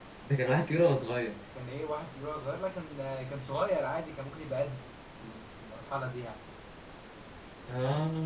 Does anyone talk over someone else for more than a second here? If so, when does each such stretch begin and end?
none

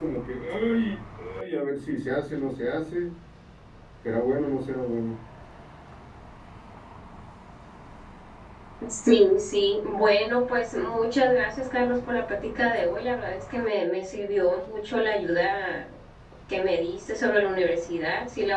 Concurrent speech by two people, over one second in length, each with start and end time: none

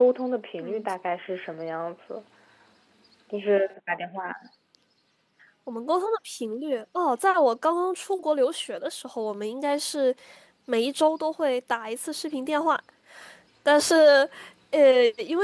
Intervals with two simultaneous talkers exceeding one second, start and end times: none

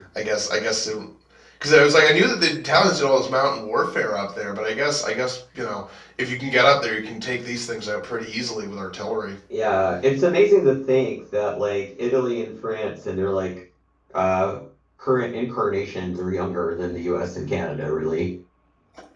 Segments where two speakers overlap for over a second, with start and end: none

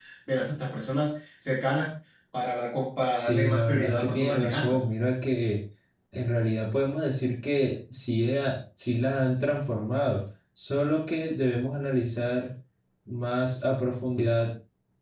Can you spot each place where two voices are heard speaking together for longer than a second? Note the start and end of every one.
3.2-4.8

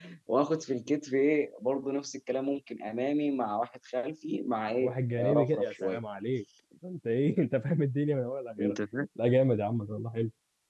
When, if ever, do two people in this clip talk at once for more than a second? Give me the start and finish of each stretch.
4.8-6.0

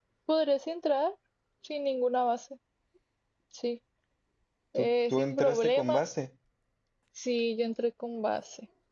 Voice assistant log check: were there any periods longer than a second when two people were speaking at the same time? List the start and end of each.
4.8-6.0

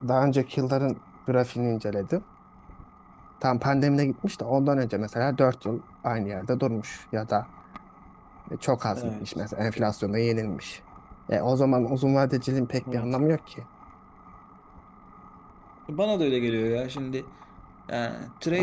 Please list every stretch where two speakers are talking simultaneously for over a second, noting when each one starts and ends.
none

